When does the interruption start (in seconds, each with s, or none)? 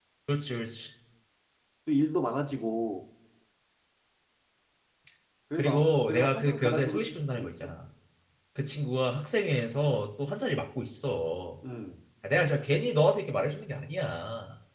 5.6 s